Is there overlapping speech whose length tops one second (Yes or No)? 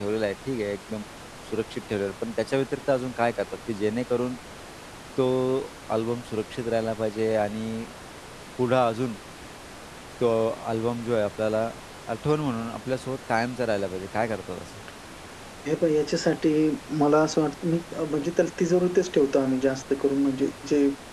No